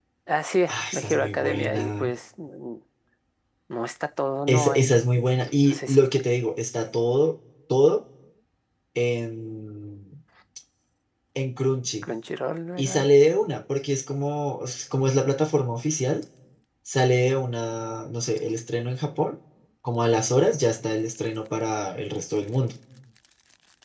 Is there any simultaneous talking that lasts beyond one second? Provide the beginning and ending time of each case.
0.7-2.1, 4.5-6.0

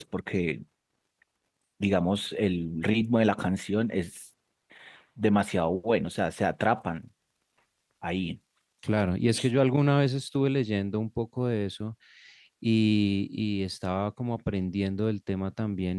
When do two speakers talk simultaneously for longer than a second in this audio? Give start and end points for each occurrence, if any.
none

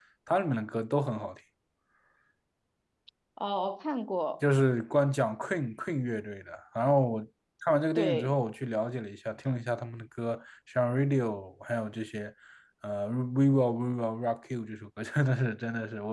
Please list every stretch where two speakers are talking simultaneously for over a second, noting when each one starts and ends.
none

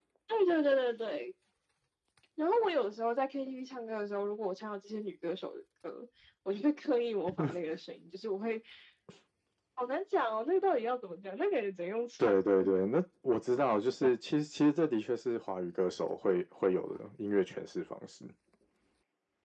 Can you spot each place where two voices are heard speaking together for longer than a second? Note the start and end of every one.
none

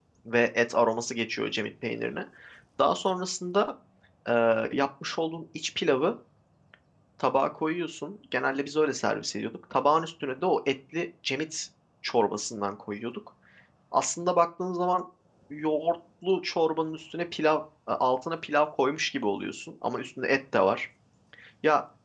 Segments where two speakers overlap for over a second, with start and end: none

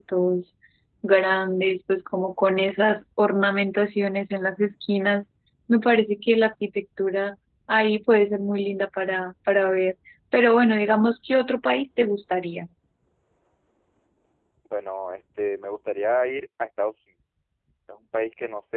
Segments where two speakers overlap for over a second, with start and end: none

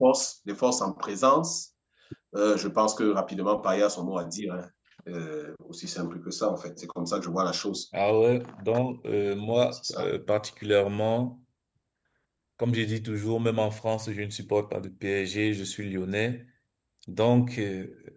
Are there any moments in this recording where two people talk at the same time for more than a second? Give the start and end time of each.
none

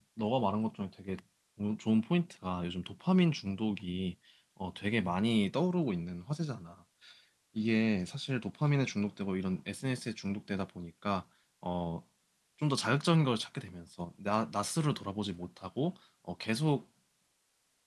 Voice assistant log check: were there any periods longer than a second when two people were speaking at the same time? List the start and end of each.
none

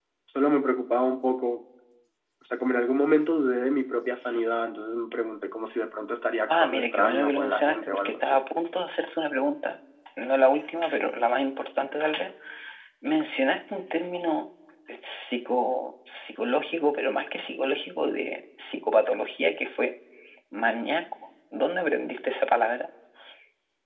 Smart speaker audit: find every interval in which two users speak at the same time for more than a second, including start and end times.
6.5-8.4

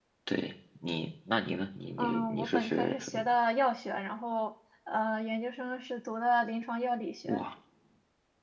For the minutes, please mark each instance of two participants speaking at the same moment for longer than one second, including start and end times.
2.0-3.3

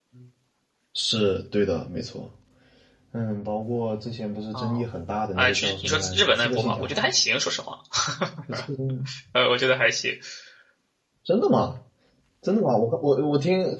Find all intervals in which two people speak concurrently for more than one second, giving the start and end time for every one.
5.4-6.8

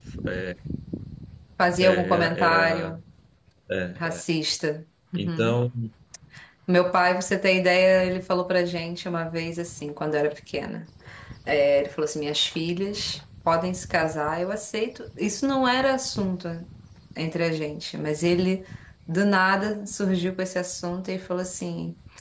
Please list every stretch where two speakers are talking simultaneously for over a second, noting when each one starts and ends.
1.8-3.0

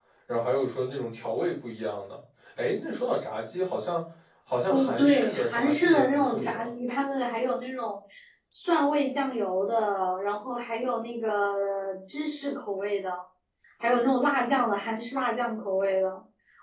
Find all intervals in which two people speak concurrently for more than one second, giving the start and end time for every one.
4.7-6.7

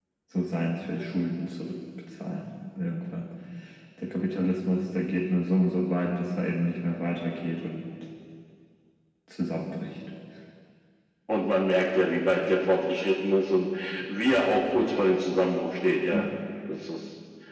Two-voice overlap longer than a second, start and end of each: none

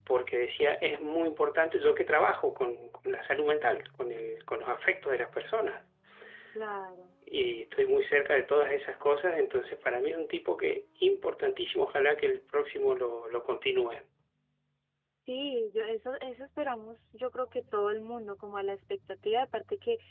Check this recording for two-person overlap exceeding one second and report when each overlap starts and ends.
none

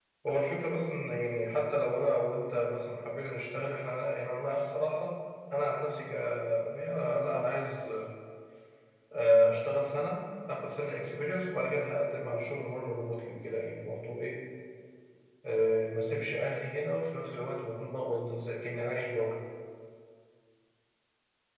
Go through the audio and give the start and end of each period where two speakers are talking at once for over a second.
none

